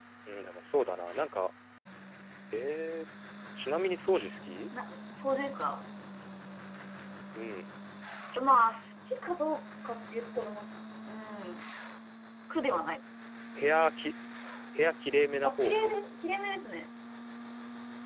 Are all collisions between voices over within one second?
Yes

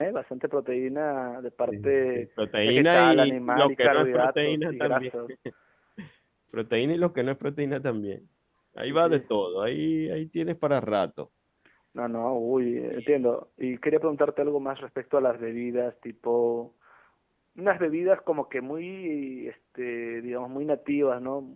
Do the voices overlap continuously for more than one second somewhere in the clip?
Yes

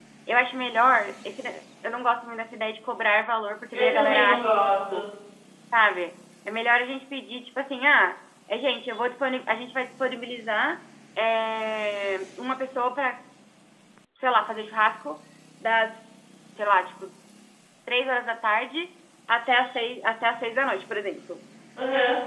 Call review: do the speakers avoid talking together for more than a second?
No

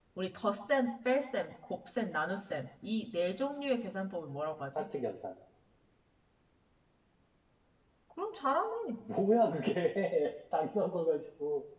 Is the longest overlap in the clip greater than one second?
No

